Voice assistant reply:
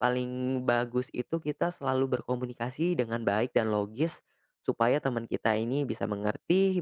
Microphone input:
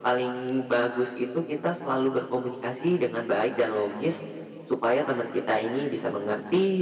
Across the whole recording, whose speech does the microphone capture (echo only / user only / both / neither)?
echo only